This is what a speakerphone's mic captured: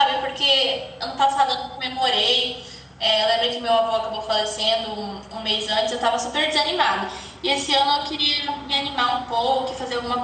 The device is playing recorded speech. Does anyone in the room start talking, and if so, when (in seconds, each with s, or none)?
none